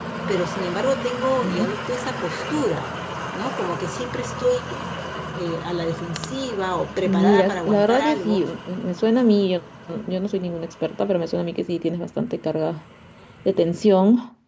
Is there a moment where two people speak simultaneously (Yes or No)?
Yes